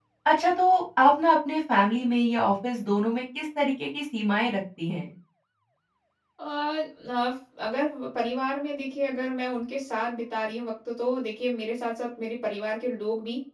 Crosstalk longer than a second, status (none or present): none